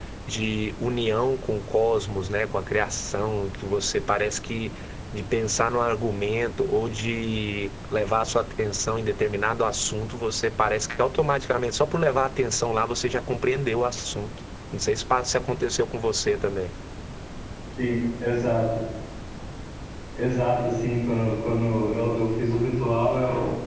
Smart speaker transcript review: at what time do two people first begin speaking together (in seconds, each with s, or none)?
none